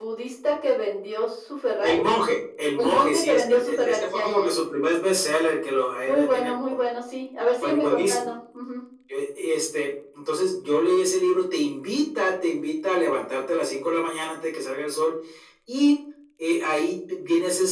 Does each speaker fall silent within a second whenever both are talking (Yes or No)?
No